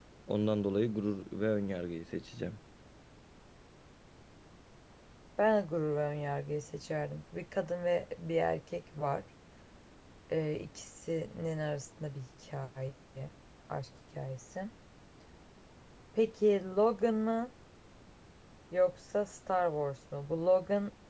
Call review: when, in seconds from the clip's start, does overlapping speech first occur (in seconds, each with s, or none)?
none